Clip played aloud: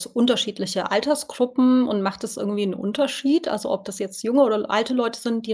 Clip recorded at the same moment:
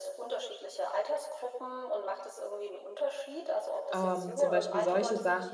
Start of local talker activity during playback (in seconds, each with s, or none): 3.9 s